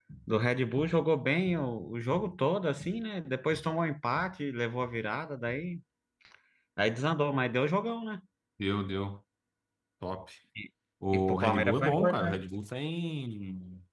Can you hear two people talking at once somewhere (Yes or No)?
Yes